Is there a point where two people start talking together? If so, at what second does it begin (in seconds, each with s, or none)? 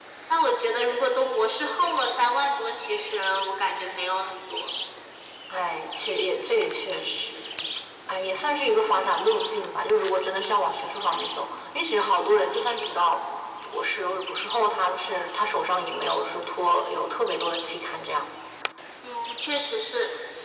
none